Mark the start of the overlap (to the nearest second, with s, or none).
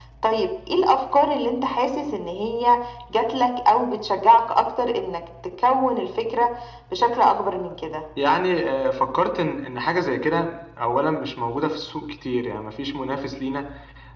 none